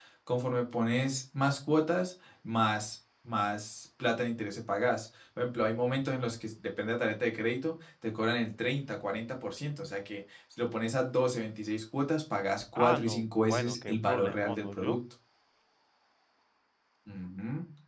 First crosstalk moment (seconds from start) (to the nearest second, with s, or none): 13 s